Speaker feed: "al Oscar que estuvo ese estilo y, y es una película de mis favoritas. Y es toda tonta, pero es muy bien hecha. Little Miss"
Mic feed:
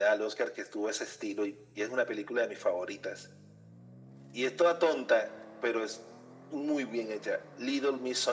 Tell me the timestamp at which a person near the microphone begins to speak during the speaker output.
none

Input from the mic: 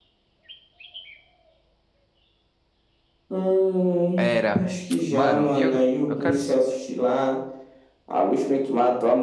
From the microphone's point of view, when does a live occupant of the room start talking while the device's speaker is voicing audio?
4.2 s

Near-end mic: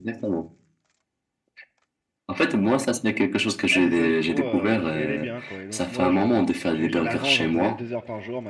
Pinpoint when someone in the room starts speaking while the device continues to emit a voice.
3.7 s

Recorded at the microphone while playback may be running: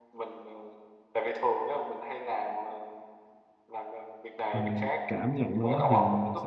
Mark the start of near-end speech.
4.5 s

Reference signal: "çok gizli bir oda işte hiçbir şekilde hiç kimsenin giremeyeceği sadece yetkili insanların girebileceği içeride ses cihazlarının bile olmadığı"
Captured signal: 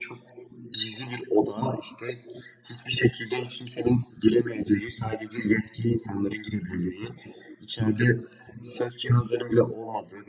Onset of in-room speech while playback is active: none

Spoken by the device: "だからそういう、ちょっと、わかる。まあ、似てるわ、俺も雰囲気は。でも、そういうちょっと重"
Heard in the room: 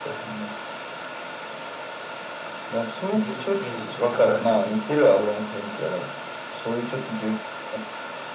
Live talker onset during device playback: 3.1 s

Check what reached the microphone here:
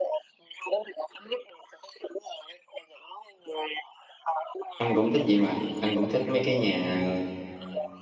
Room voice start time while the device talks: 4.8 s

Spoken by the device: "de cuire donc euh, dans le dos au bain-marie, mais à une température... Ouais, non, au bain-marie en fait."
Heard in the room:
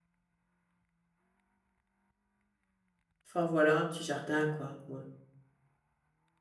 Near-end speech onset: 3.2 s

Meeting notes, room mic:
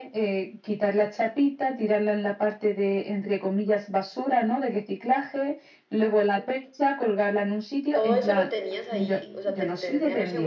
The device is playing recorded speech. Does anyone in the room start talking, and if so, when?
7.9 s

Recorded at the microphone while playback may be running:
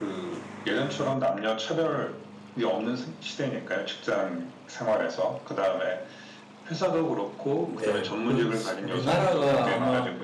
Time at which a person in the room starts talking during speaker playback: 7.6 s

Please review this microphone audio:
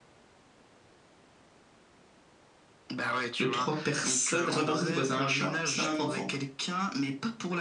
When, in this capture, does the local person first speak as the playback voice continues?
3.4 s

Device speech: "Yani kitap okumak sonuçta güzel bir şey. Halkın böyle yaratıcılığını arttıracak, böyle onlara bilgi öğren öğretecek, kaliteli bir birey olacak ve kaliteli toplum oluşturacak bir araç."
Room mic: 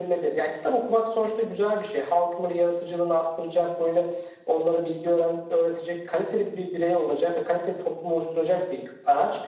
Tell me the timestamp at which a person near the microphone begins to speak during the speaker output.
none

